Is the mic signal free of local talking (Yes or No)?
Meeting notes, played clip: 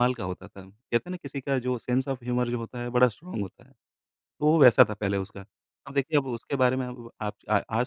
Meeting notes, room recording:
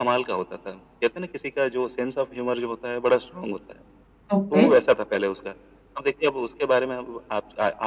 No